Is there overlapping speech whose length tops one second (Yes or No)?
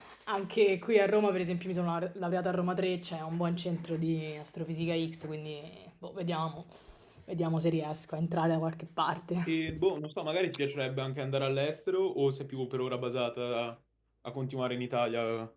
No